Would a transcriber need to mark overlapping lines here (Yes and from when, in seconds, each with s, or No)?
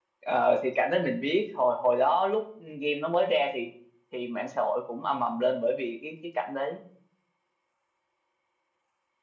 No